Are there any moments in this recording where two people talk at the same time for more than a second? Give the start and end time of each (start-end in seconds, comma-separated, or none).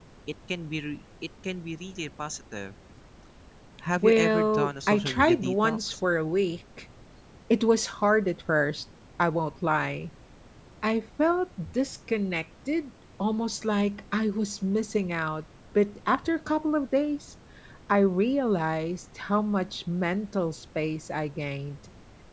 4.0-6.0